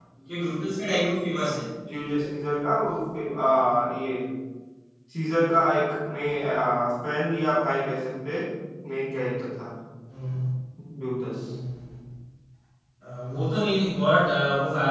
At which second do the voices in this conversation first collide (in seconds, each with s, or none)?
none